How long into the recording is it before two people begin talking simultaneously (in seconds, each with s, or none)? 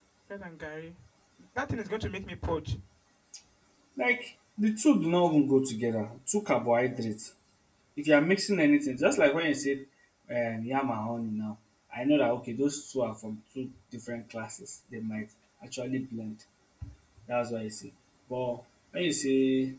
none